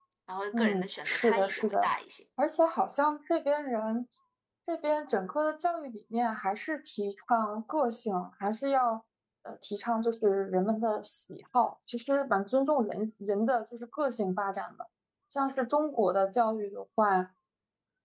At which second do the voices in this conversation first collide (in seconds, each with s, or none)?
0.5 s